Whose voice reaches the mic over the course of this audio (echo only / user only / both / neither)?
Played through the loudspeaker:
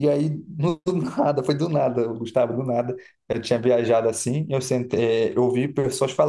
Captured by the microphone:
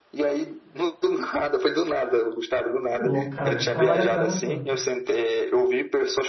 both